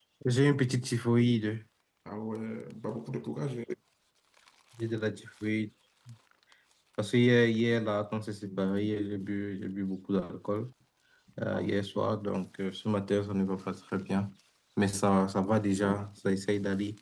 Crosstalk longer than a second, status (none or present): none